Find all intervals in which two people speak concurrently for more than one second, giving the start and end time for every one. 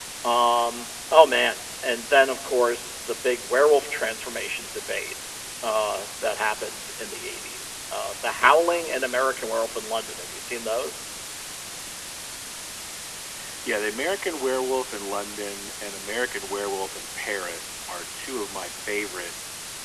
none

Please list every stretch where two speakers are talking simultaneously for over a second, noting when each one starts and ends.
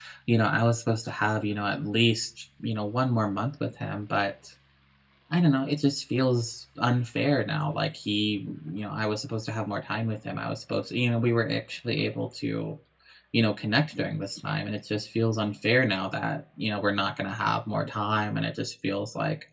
none

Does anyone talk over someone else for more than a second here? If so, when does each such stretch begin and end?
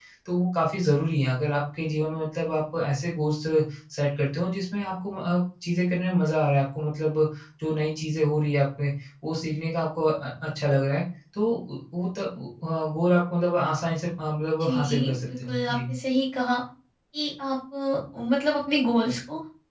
14.6-15.9

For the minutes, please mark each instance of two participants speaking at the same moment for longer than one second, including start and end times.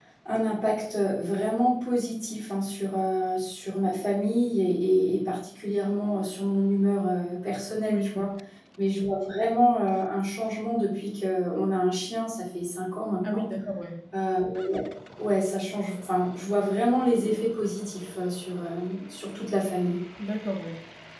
none

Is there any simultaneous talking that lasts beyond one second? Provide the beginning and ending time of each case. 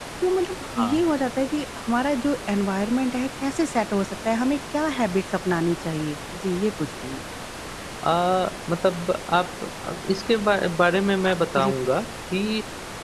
none

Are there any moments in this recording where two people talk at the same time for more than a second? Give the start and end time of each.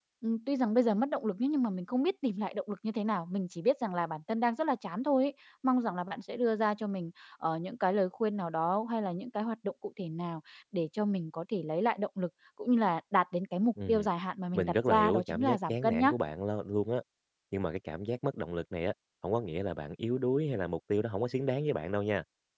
14.5-16.1

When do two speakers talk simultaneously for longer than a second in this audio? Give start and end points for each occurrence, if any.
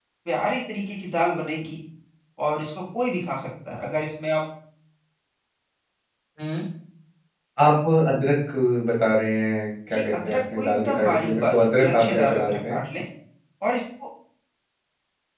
9.9-12.8

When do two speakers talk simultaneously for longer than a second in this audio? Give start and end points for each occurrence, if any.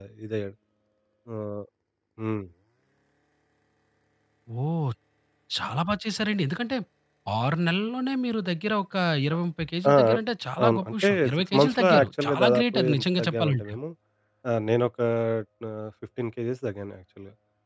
10.6-13.7

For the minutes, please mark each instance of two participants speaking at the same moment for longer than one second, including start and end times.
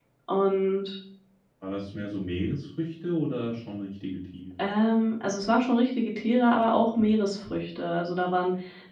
none

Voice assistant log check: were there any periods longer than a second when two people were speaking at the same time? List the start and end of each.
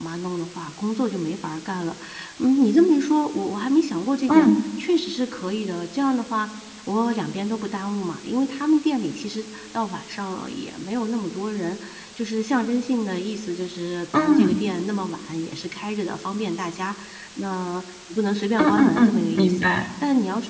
18.6-19.8

